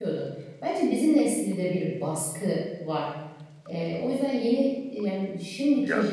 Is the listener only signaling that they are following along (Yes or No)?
Yes